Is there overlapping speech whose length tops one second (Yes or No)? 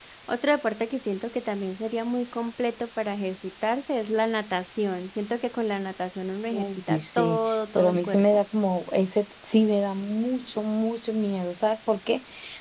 Yes